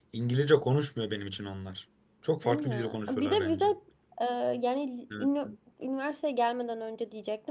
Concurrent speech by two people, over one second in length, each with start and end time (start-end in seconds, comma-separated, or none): 2.4-3.6